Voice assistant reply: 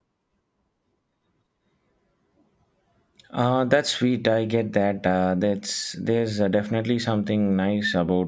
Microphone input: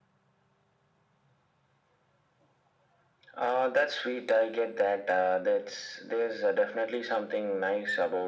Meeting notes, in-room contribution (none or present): none